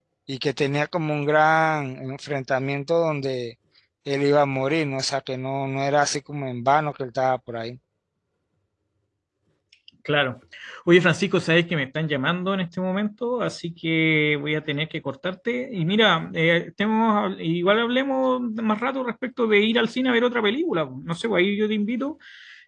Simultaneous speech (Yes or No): No